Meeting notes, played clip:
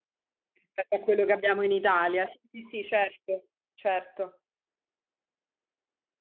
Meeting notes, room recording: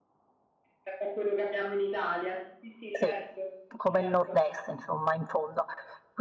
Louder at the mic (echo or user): user